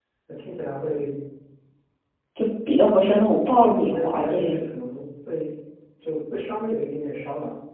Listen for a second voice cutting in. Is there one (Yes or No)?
Yes